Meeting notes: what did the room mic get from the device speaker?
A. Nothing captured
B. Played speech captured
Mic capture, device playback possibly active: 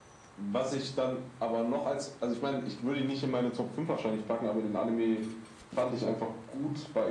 B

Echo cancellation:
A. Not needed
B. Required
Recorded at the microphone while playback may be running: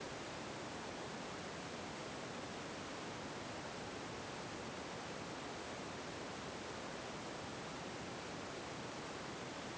A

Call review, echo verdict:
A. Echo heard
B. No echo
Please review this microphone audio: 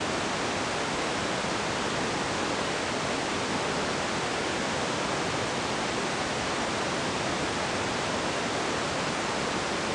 B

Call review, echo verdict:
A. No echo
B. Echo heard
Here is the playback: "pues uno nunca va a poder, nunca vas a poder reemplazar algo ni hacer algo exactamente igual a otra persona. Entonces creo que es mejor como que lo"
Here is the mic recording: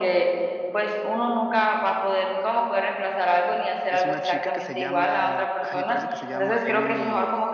B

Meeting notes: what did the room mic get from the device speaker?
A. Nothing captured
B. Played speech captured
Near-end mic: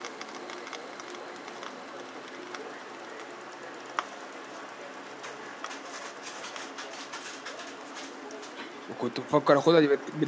A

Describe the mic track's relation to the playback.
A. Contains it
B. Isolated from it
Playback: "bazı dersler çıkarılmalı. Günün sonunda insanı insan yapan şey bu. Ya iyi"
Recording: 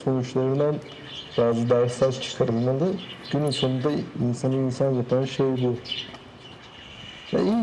A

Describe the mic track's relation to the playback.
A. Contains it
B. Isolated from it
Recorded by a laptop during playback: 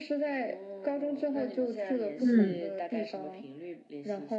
A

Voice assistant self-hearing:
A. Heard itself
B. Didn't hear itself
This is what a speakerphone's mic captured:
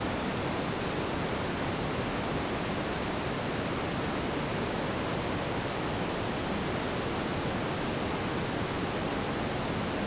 B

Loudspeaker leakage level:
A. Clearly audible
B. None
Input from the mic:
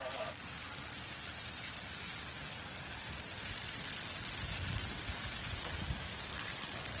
B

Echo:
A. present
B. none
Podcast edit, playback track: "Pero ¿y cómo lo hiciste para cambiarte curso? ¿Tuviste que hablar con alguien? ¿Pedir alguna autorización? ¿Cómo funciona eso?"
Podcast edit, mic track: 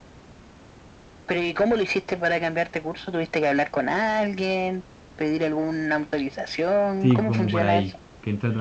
A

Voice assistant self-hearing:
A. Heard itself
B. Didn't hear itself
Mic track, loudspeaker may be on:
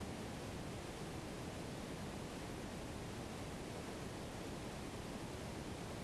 B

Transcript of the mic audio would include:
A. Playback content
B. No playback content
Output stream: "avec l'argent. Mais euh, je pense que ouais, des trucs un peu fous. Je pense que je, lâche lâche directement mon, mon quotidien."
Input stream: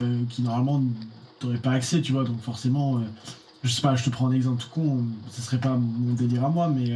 B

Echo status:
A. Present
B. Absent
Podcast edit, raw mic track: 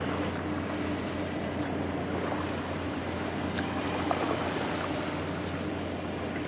B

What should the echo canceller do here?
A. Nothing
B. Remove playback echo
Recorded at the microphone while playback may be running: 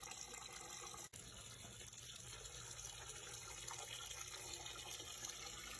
A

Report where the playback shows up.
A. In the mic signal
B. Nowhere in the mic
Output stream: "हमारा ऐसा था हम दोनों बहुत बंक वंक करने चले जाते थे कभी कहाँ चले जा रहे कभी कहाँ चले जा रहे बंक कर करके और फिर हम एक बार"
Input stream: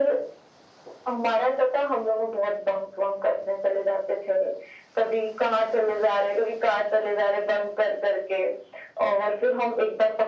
A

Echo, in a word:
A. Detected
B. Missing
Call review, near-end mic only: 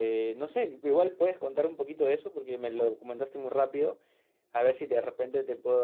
B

